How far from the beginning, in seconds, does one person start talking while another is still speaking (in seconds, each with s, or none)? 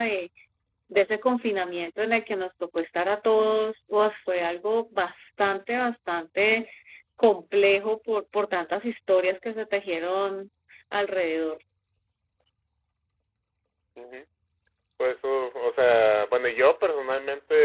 none